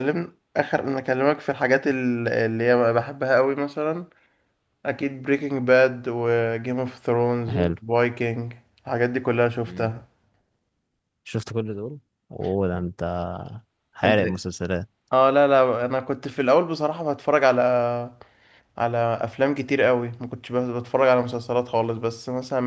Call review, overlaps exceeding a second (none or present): none